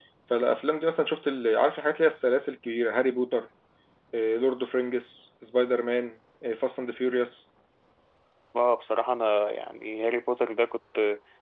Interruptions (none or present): none